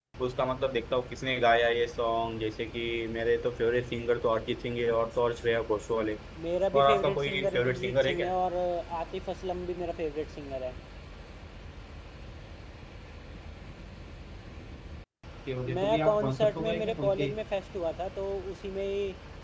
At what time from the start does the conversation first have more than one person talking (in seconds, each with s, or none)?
6.7 s